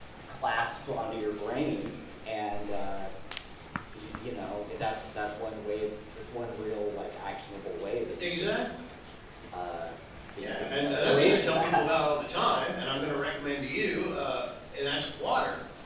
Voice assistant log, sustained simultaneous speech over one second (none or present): present